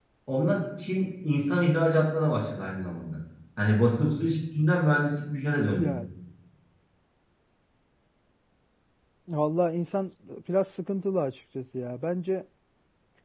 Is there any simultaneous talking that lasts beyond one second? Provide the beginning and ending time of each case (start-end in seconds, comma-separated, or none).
none